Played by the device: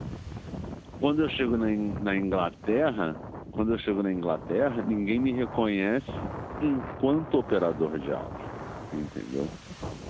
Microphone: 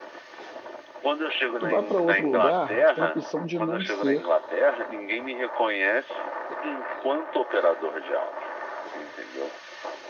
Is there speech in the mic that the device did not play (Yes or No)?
Yes